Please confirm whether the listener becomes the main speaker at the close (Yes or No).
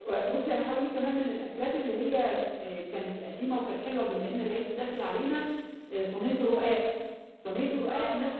No